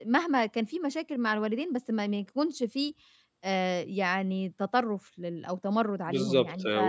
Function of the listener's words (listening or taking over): taking over